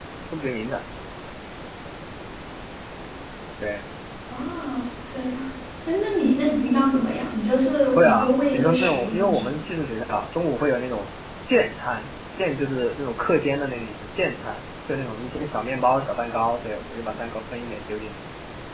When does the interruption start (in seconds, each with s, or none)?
8.0 s